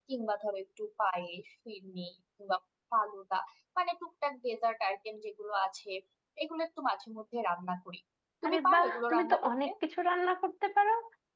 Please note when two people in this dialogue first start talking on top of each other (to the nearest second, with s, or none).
8 s